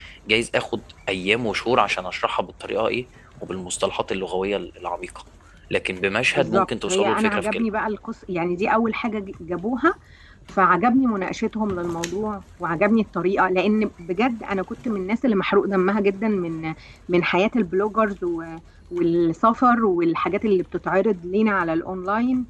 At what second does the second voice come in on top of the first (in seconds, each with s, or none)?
6.3 s